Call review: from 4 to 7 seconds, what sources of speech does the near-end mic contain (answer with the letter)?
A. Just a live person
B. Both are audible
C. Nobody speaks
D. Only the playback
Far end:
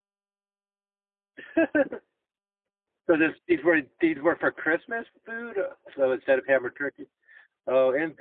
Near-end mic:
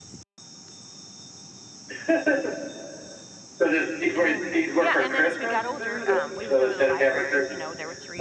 B